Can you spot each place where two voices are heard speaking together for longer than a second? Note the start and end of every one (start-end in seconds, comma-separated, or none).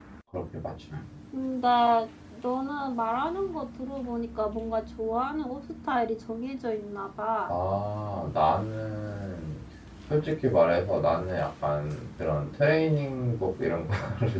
none